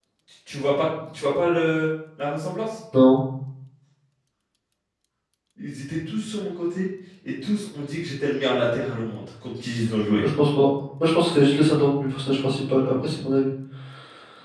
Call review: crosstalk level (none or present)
none